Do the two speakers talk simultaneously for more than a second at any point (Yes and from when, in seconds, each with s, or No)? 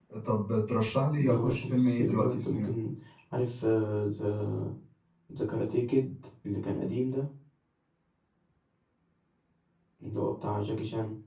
Yes, from 1.2 s